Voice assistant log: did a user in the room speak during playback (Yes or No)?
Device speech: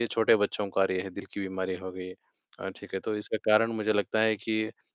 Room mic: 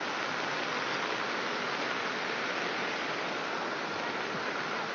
No